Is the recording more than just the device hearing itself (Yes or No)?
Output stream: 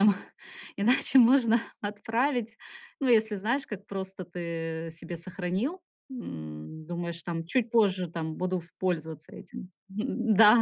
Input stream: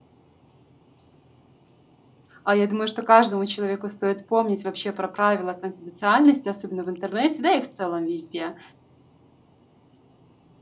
Yes